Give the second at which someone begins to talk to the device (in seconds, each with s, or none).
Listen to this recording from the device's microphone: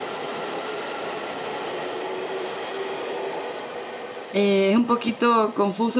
4.3 s